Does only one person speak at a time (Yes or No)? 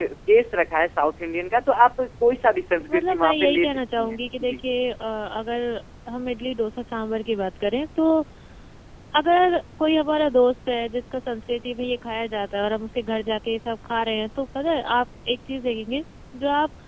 No